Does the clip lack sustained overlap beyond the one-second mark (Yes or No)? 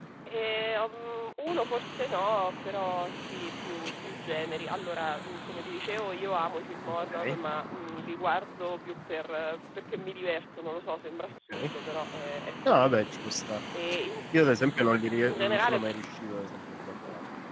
Yes